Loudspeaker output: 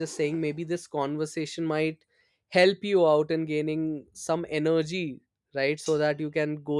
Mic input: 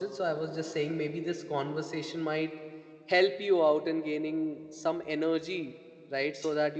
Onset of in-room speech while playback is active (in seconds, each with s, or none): none